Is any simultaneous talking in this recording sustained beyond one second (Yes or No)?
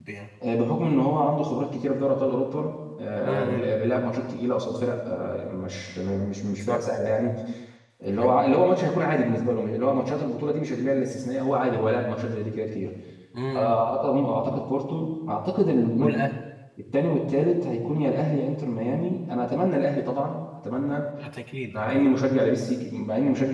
No